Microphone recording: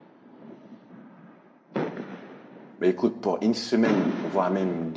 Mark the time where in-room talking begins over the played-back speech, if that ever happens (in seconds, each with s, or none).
2.8 s